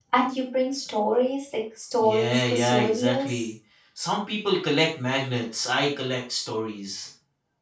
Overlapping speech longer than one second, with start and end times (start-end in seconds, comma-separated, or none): 2.0-3.4